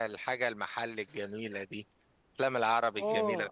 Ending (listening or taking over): taking over